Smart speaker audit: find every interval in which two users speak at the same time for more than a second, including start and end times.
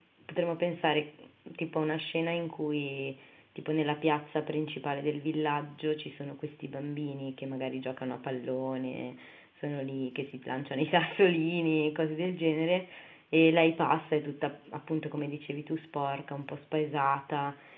none

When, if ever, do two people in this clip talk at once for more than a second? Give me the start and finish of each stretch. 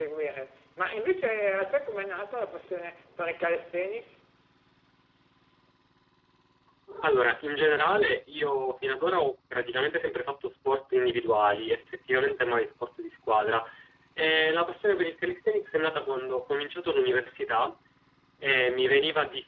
none

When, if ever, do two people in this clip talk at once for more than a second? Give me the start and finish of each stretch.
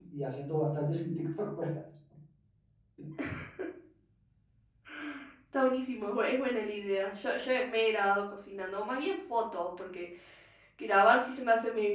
none

